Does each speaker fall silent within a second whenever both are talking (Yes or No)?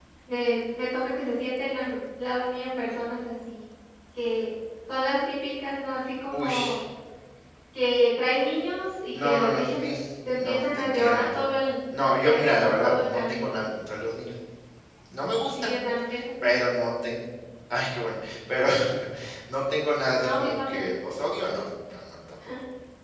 No